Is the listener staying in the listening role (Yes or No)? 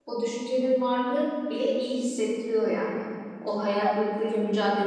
Yes